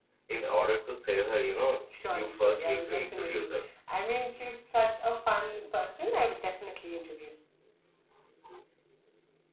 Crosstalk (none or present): present